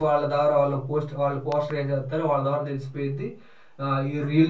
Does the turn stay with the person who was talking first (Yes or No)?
Yes